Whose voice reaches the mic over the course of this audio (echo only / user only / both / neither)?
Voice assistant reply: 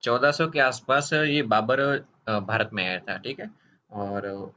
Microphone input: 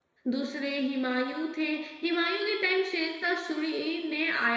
user only